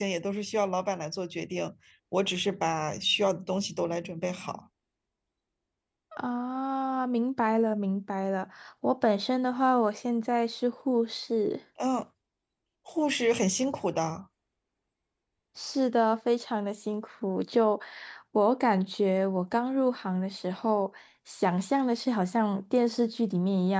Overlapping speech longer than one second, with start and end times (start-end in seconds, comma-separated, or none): none